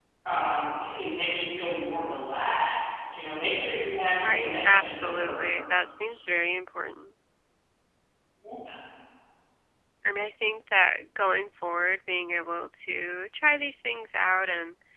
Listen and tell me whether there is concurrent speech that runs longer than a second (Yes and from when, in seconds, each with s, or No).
Yes, from 4.2 s